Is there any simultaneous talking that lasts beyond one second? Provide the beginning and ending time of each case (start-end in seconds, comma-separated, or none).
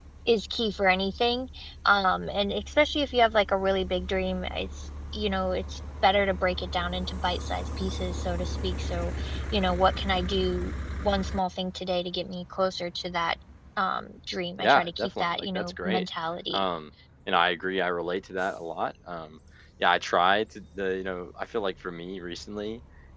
14.6-16.1